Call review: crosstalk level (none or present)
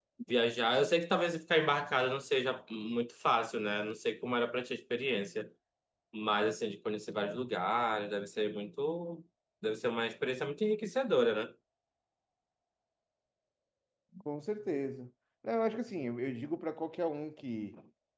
none